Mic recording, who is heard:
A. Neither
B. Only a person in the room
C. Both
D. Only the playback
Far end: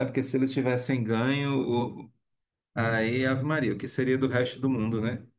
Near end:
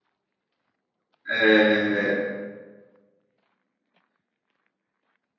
B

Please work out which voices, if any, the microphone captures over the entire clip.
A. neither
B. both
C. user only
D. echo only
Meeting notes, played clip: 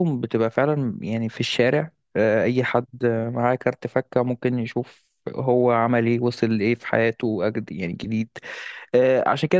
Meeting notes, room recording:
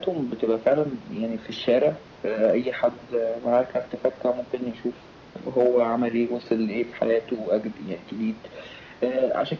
D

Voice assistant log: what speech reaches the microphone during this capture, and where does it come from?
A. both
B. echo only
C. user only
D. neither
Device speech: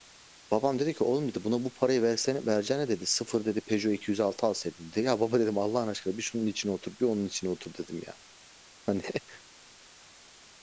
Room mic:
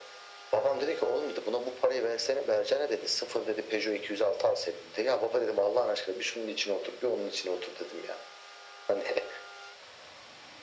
B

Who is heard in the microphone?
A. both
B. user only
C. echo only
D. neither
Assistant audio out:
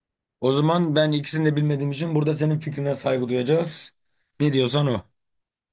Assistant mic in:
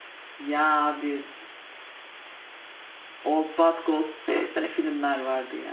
B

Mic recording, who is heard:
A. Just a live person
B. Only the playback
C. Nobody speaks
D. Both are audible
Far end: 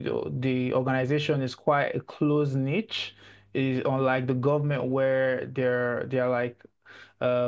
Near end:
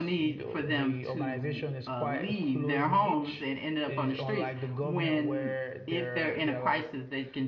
D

